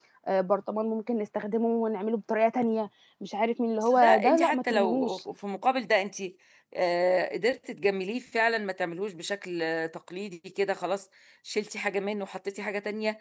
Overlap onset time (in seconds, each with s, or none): 3.9 s